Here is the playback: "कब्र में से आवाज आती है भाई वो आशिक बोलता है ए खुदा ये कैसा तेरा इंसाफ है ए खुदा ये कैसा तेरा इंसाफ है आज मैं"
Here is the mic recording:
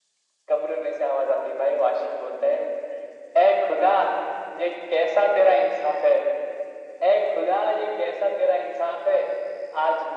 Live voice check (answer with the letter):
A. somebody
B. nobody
B